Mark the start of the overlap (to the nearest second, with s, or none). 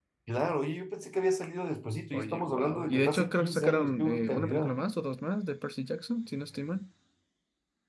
2 s